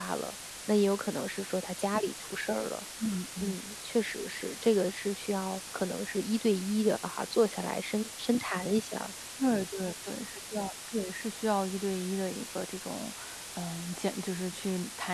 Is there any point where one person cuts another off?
No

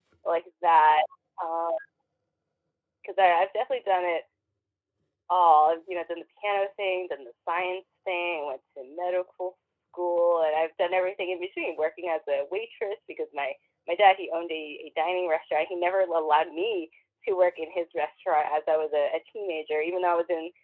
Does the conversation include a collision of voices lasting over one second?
No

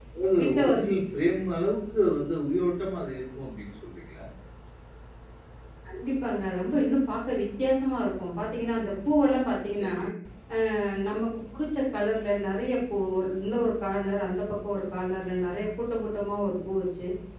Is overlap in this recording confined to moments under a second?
Yes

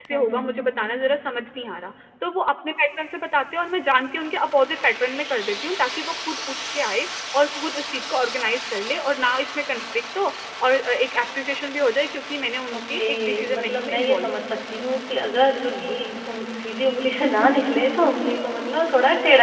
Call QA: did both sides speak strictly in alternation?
No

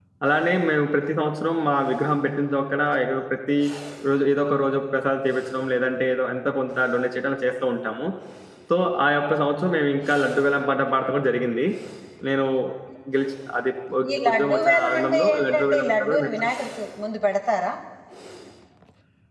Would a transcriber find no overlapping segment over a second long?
No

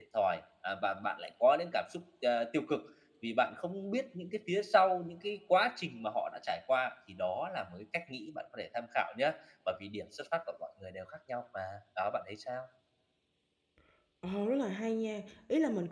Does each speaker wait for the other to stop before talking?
Yes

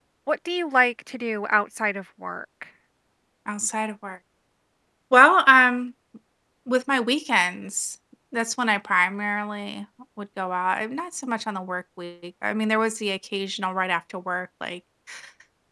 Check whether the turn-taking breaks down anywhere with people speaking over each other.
No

